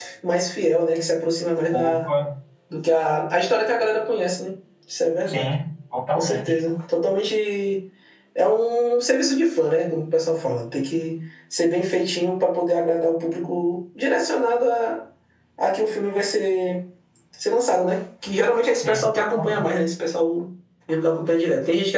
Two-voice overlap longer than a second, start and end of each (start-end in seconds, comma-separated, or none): none